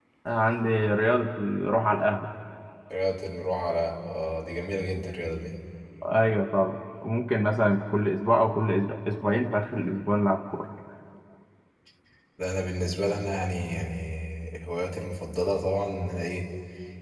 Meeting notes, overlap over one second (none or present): none